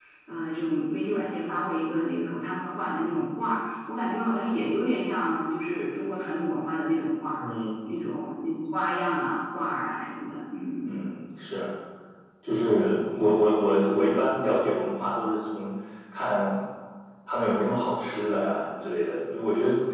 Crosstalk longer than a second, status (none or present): none